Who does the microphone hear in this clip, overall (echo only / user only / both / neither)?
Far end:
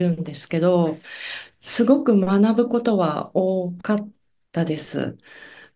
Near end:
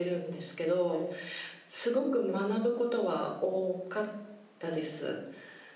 echo only